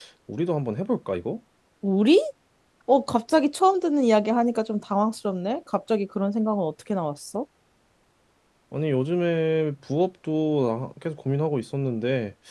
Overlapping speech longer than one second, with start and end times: none

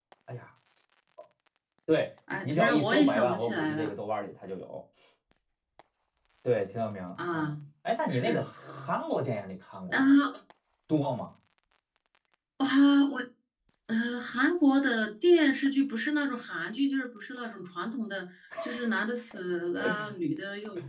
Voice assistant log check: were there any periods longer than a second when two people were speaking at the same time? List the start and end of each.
2.4-4.0

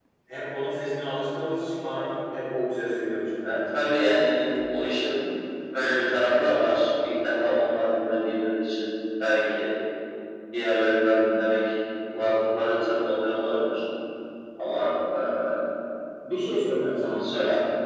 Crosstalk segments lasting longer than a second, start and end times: none

